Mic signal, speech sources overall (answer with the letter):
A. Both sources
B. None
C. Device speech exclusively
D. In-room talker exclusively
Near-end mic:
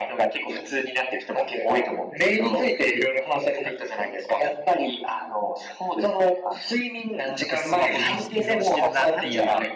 A